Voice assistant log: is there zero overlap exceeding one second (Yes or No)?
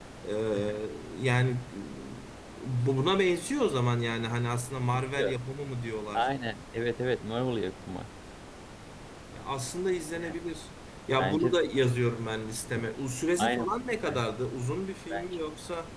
Yes